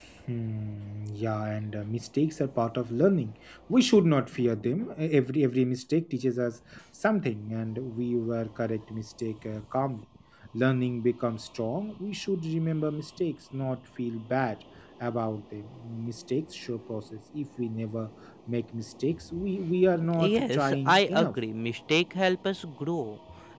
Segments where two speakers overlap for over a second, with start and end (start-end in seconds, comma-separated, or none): 20.1-21.4